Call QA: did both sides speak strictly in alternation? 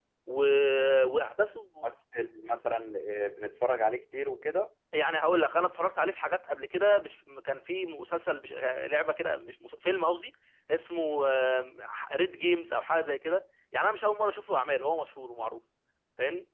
Yes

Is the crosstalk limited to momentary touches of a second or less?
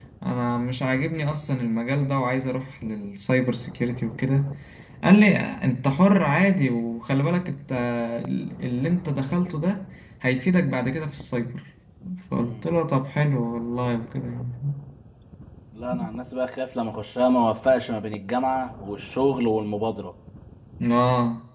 Yes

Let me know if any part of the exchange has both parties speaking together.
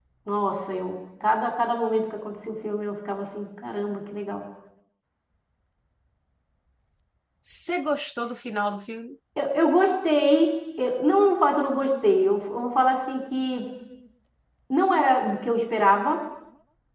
No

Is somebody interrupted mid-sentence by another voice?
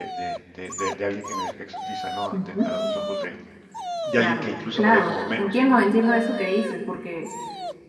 Yes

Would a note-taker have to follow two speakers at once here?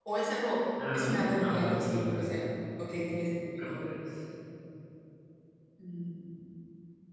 Yes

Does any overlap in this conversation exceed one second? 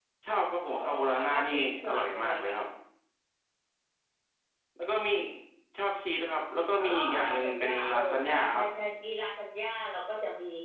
Yes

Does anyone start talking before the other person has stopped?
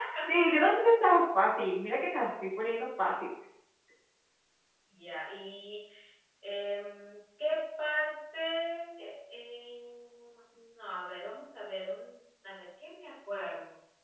No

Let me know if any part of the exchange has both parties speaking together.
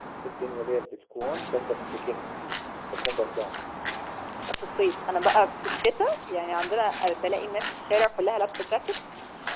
No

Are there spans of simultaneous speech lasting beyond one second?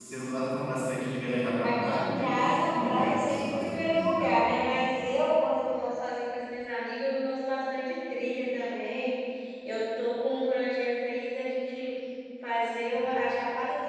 Yes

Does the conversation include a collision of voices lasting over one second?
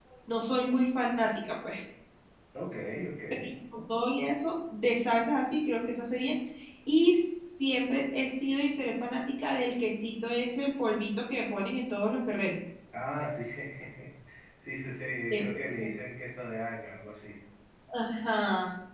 No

